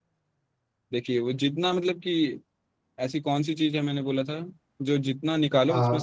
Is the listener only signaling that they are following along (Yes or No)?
Yes